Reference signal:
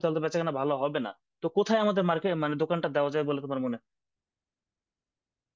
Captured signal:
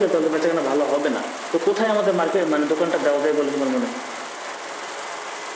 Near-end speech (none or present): none